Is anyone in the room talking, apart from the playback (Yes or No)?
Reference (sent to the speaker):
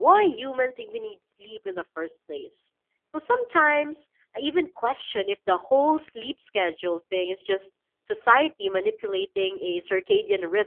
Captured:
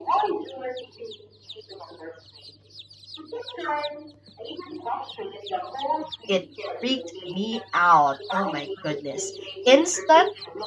Yes